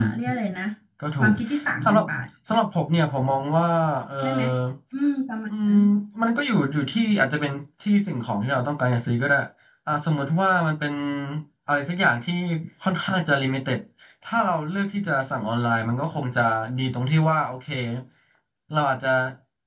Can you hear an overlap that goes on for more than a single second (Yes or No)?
No